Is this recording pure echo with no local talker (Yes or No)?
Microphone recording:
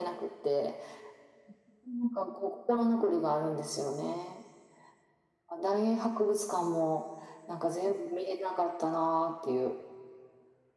Yes